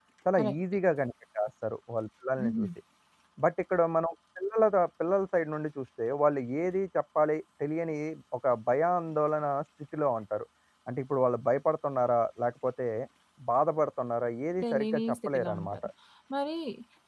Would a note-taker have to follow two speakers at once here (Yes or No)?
Yes